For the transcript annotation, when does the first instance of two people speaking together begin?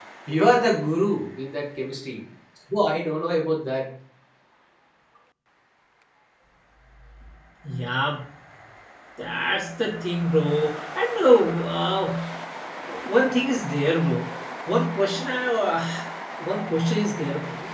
none

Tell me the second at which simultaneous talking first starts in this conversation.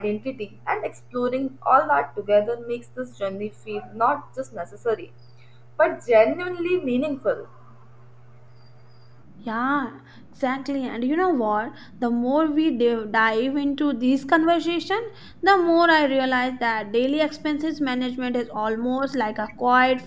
none

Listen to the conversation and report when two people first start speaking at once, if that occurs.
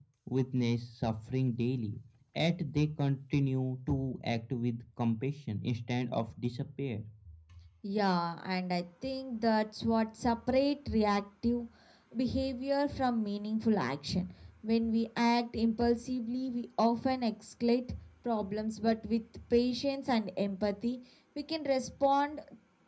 none

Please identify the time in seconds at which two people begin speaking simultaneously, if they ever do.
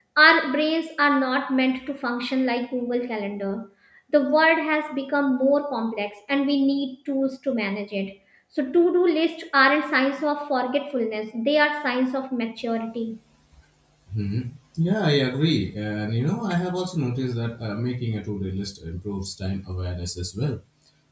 none

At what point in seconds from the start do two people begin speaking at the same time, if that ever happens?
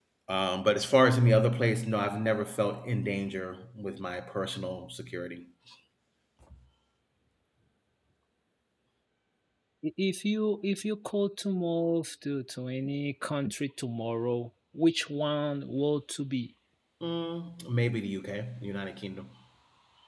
none

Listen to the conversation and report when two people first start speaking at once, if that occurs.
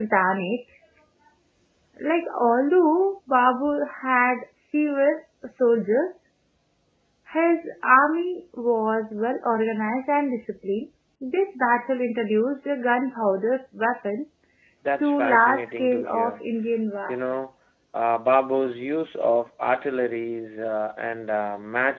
15.0 s

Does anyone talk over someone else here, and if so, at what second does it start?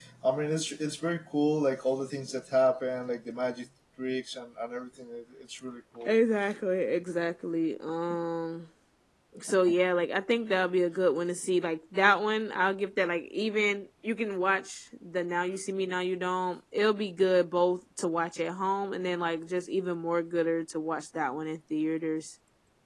none

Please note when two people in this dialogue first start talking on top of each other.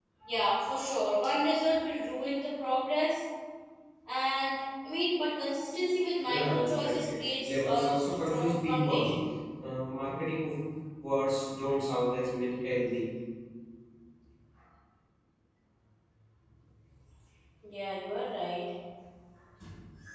6.3 s

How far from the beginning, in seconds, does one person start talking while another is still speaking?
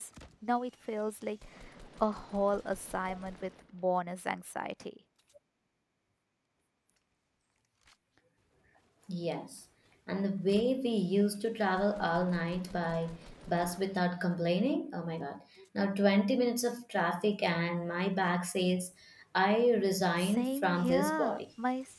20.2 s

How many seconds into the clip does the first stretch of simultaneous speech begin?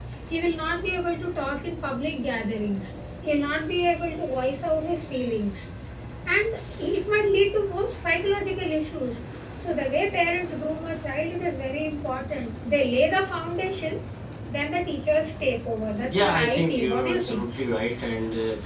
16.0 s

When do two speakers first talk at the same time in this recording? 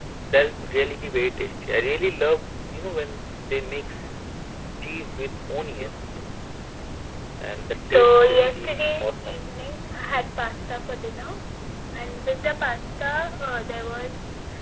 7.9 s

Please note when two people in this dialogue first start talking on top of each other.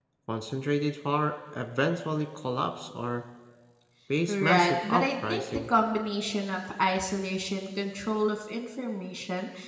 4.3 s

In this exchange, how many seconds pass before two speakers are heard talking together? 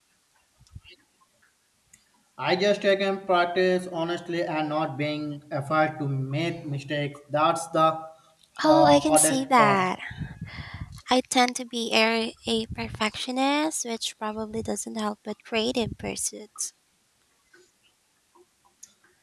8.6 s

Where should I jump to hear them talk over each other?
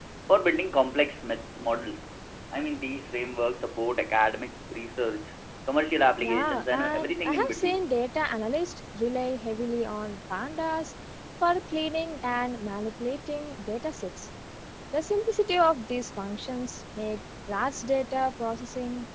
6.2 s

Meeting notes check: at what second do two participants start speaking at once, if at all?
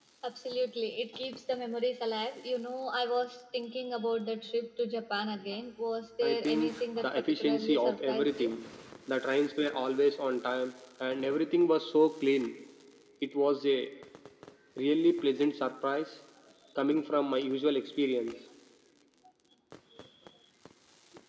6.2 s

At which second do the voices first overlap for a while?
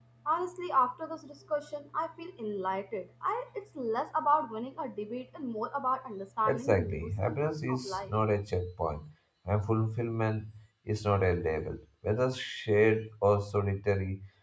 6.4 s

